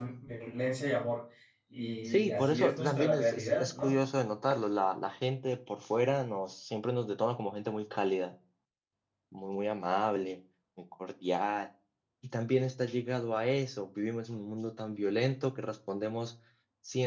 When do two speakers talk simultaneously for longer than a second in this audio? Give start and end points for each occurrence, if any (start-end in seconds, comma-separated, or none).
2.0-3.9